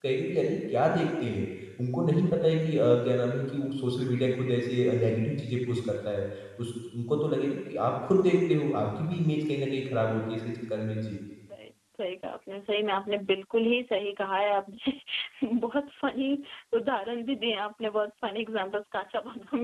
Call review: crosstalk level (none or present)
none